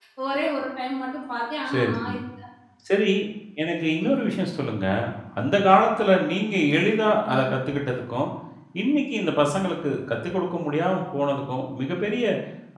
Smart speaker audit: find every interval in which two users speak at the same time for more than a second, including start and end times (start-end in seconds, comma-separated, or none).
none